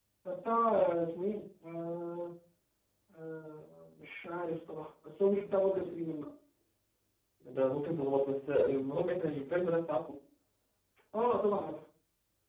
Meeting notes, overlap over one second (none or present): none